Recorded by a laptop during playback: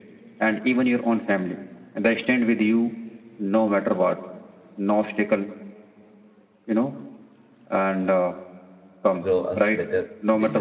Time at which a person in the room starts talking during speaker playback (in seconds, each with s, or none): 9.2 s